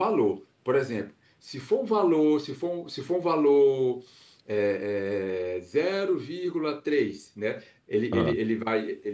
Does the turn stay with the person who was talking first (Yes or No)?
Yes